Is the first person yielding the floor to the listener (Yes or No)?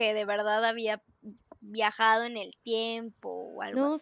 Yes